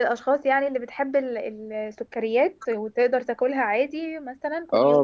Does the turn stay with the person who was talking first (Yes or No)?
No